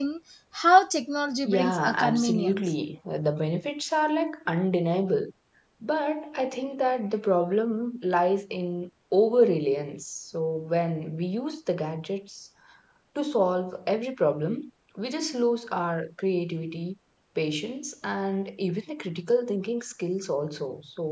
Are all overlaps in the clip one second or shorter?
No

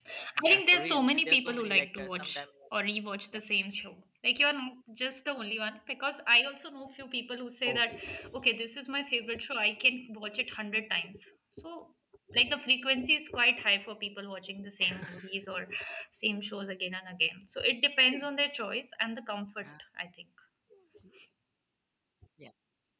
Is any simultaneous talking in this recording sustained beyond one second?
Yes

